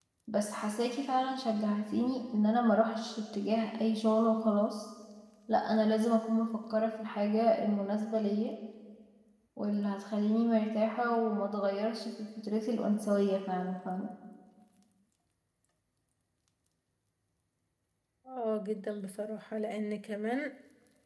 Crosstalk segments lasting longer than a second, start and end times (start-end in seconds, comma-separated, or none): none